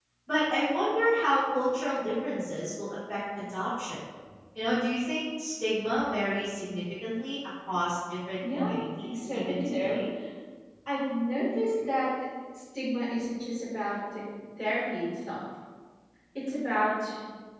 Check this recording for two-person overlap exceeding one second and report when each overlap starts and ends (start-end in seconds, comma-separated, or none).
8.5-10.0